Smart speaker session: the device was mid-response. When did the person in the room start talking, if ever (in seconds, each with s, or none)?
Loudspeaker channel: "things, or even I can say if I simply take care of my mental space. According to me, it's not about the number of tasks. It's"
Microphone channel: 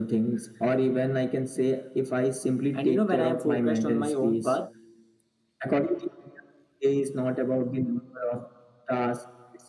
2.7 s